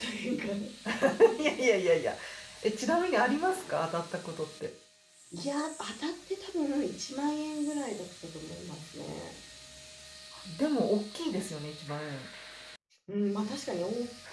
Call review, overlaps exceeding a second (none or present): none